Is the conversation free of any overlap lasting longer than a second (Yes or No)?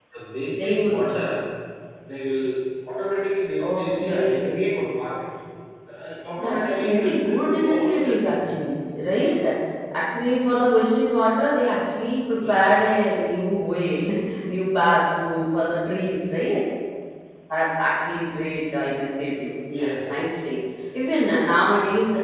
No